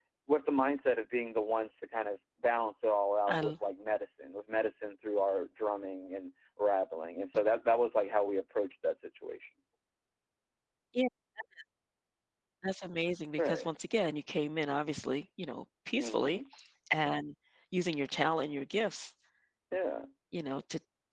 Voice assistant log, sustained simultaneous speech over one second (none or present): none